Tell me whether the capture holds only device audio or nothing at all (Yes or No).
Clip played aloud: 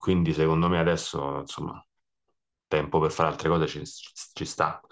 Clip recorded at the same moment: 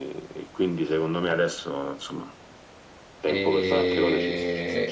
No